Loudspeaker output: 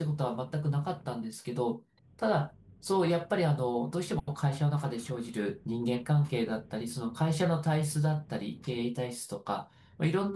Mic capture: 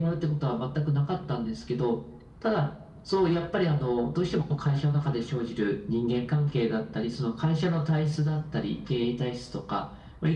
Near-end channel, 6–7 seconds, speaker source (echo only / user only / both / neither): echo only